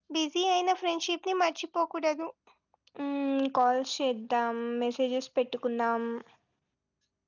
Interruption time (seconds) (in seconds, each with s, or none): none